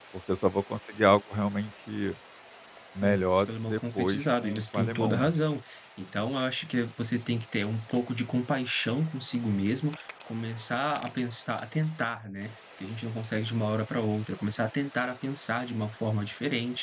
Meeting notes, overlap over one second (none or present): present